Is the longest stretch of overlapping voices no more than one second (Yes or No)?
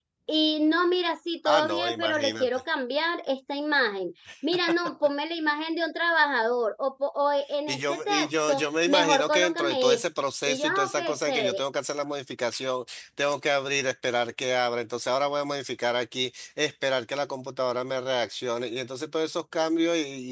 No